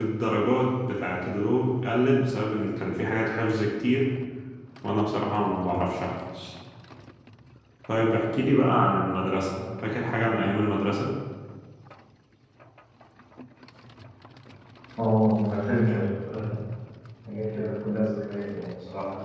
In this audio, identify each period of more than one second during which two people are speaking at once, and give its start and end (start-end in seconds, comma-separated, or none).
none